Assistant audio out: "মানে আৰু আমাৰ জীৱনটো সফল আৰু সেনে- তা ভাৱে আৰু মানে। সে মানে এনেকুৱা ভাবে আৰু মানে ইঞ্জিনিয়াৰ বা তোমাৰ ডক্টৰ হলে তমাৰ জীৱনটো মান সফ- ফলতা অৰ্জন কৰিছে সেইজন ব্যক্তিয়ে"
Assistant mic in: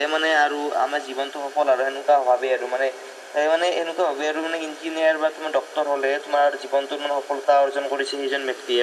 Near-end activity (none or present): none